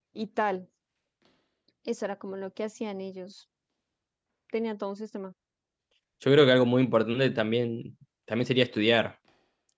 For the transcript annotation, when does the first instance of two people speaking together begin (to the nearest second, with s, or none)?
none